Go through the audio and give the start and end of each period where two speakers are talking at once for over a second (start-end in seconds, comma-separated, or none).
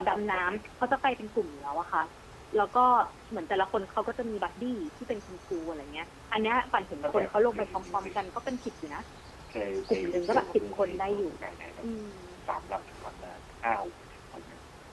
7.0-8.3, 9.9-11.3